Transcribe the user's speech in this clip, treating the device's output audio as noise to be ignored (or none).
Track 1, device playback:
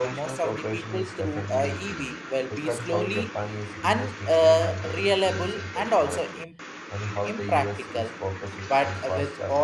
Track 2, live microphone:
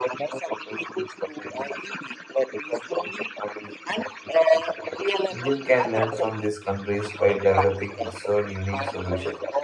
India can learn from these countries while developing its own unique solution